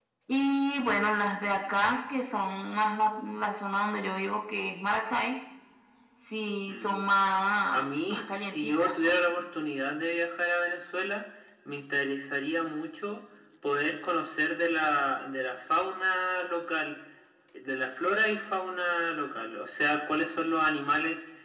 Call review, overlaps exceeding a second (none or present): present